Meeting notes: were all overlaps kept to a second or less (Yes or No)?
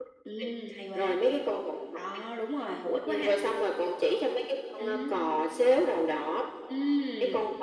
Yes